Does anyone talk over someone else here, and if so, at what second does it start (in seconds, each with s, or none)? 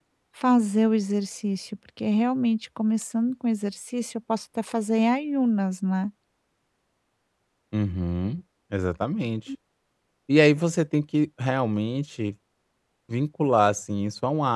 none